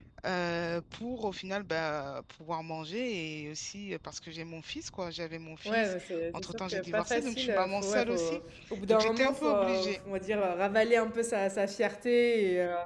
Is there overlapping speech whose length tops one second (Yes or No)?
Yes